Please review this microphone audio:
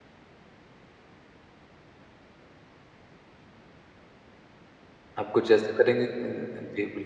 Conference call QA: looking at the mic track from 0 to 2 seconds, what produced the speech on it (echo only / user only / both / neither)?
neither